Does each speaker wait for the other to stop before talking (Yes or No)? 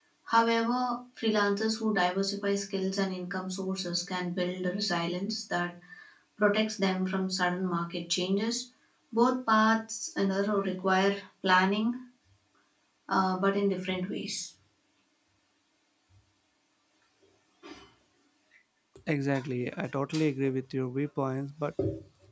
Yes